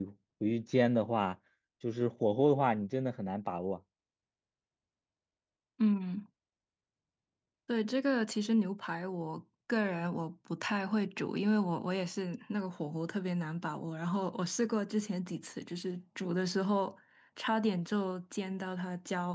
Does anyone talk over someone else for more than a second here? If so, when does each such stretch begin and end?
none

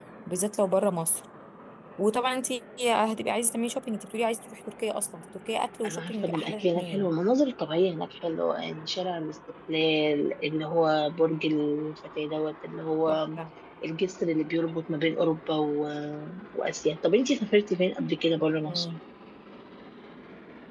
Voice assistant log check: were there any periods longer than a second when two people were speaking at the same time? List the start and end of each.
5.8-7.1

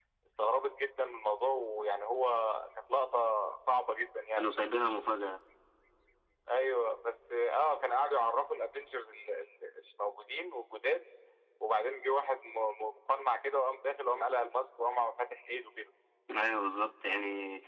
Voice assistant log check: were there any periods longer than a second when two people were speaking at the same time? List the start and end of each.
none

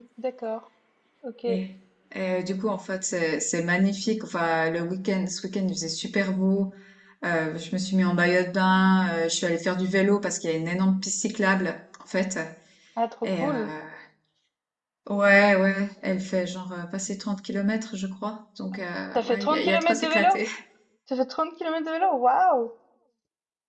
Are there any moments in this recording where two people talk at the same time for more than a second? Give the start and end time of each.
19.1-20.4

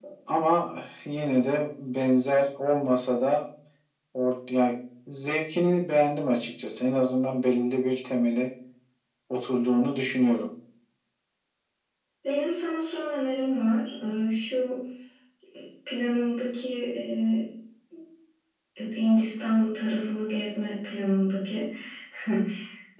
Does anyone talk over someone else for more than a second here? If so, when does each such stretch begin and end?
none

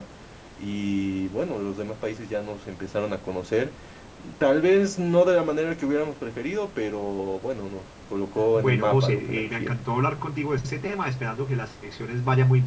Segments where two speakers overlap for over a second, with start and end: 8.6-9.8

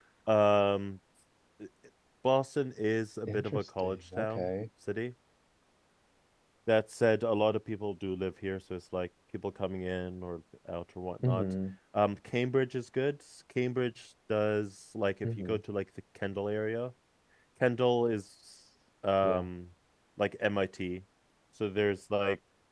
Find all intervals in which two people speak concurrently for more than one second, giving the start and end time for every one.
3.3-4.5

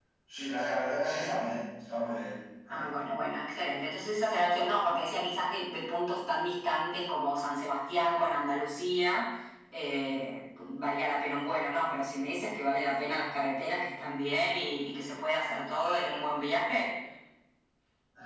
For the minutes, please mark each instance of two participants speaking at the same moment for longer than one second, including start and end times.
none

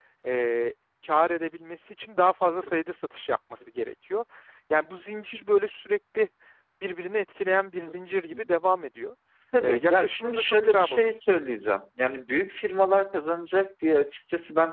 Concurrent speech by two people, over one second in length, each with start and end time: 9.6-11.1

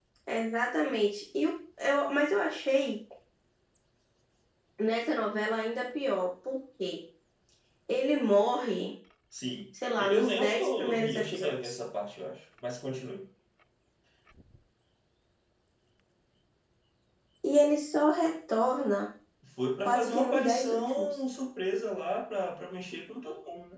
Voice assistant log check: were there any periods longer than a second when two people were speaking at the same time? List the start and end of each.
10.0-11.8, 19.8-21.1

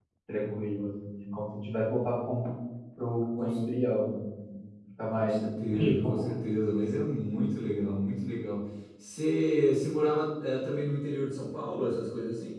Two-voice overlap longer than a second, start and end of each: 5.1-6.3

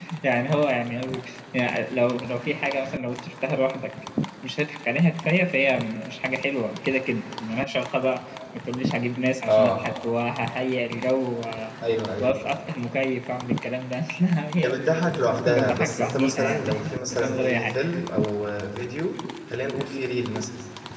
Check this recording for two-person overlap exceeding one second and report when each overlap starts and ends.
14.6-17.8

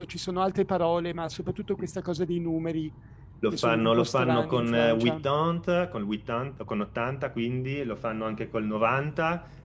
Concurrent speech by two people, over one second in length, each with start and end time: 3.5-5.2

